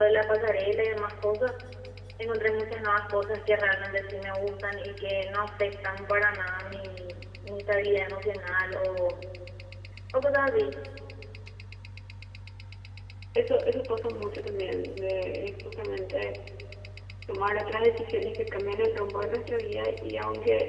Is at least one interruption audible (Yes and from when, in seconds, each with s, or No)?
No